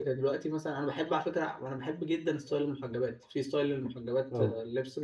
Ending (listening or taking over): listening